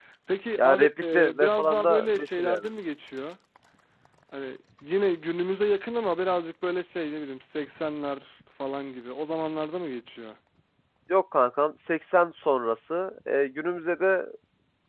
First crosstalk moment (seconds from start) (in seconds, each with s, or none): 0.6 s